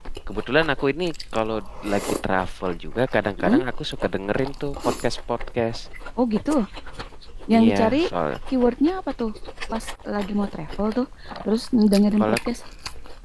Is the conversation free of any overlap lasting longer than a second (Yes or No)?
Yes